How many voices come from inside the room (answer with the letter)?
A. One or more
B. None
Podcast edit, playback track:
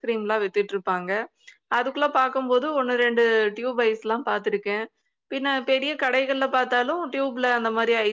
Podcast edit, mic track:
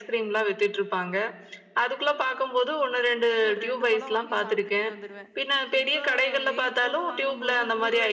A